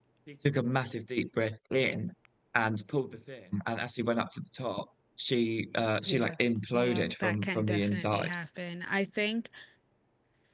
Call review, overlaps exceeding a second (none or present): present